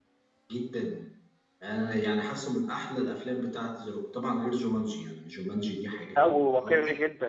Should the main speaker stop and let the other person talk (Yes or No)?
Yes